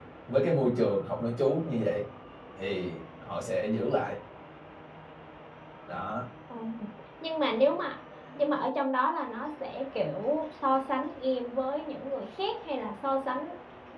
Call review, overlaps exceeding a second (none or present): none